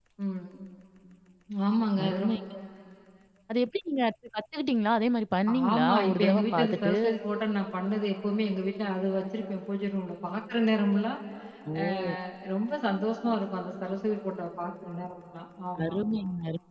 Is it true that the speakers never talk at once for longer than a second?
No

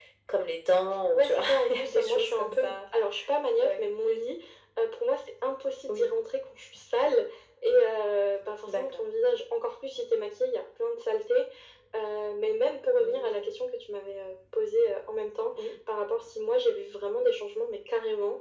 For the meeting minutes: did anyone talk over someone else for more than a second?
Yes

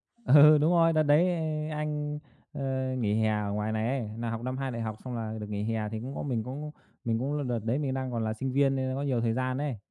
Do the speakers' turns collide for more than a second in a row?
No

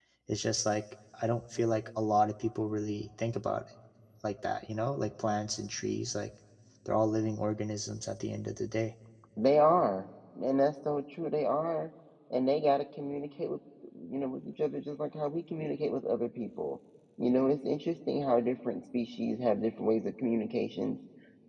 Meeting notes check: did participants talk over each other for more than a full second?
No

